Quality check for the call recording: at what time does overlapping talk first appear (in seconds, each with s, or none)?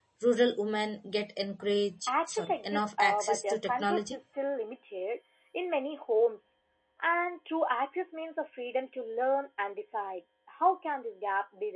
2.1 s